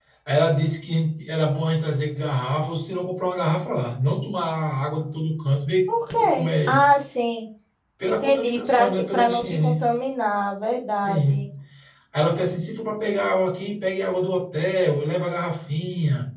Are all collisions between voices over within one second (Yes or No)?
No